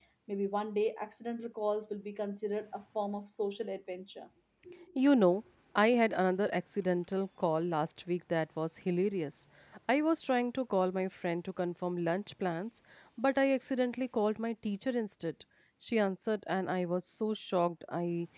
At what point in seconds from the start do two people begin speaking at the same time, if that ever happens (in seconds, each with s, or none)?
none